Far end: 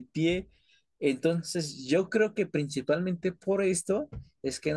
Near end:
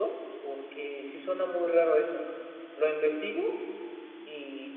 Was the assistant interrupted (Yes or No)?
Yes